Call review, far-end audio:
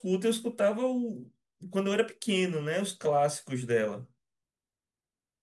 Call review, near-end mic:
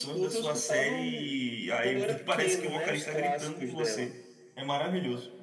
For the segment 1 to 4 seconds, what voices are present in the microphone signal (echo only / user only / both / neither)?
both